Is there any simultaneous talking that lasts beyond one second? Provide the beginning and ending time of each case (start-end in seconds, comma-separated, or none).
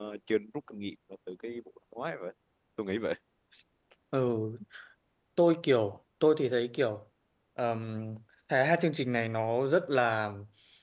none